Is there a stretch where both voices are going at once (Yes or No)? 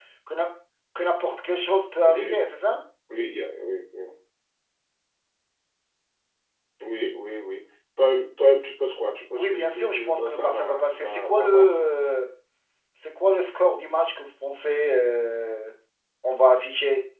Yes